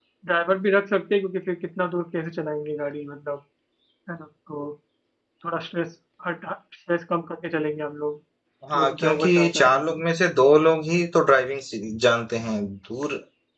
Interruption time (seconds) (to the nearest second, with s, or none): 9 s